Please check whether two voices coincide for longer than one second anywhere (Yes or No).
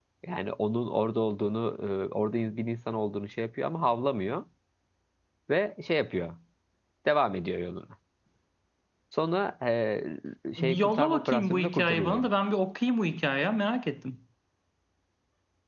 Yes